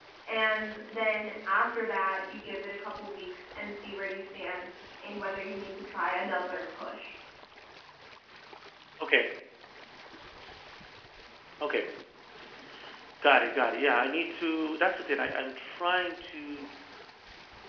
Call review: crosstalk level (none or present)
none